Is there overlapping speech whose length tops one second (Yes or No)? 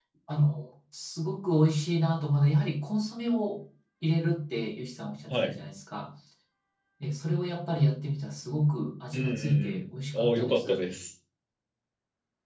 Yes